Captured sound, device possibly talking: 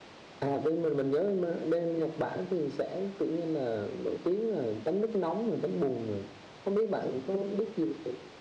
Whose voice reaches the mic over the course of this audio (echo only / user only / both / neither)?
user only